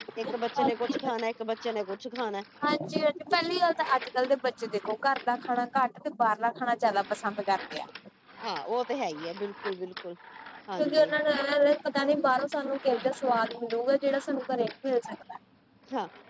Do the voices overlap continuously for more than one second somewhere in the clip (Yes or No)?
No